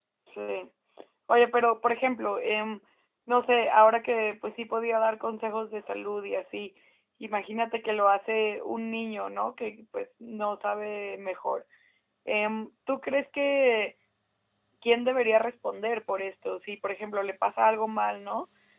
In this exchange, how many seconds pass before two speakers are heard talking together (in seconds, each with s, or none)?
none